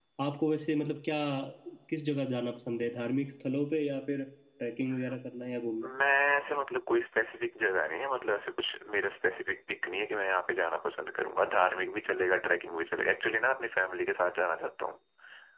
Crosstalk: none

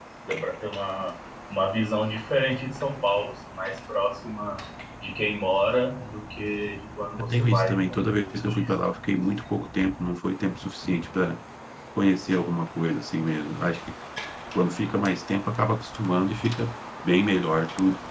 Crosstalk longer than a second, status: present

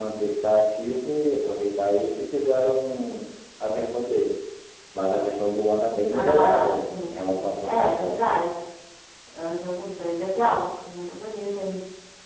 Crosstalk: present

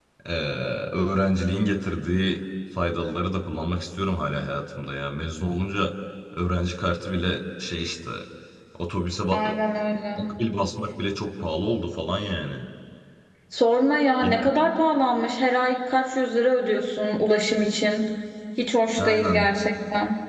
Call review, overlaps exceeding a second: none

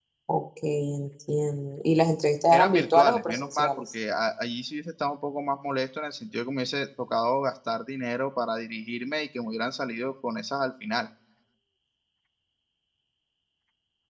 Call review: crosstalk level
present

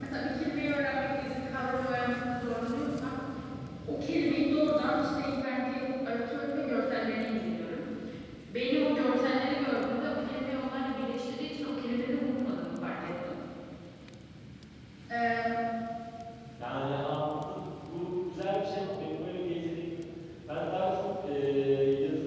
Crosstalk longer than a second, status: none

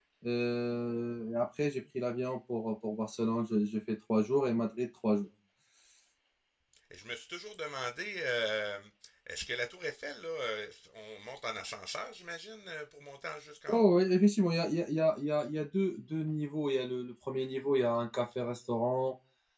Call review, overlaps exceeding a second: none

